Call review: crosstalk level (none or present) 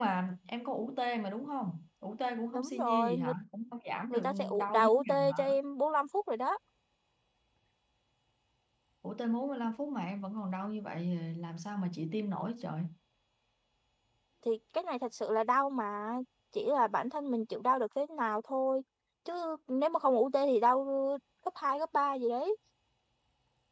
present